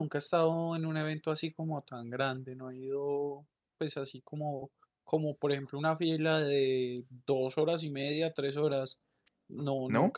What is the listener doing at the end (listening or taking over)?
listening